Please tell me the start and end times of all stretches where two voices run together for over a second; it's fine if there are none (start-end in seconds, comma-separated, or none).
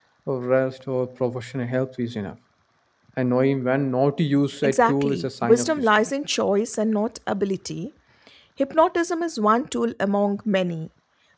4.6-6.0